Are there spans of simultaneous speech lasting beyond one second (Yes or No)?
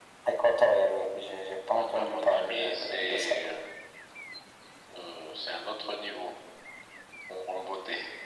Yes